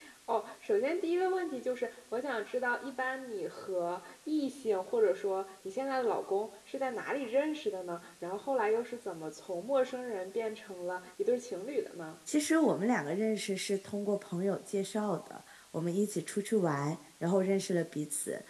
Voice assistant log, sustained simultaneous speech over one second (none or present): none